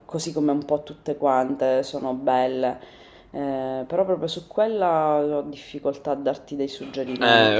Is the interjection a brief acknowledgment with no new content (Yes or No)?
No